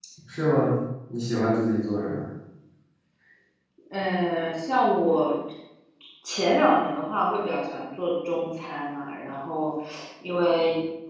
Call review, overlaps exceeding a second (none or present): none